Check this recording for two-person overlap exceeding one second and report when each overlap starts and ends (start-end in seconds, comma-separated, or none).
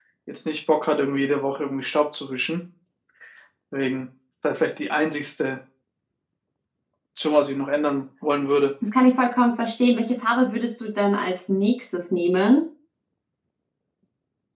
none